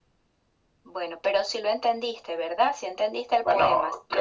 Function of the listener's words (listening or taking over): taking over